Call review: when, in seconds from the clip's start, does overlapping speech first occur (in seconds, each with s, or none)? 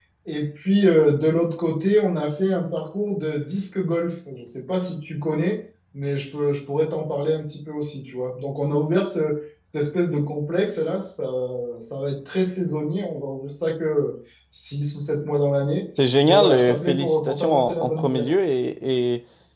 16.2 s